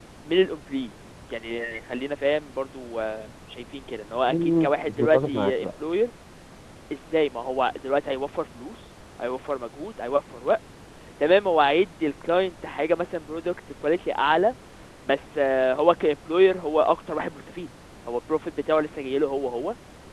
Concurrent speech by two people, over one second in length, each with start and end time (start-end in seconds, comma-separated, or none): 4.3-5.7